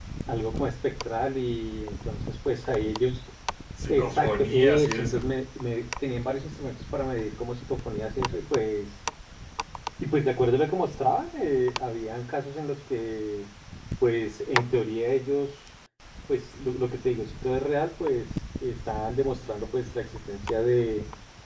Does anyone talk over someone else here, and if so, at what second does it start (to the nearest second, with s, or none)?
4 s